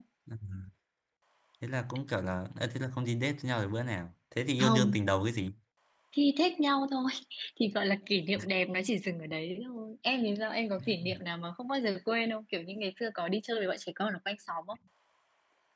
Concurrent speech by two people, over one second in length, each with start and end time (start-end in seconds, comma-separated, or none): none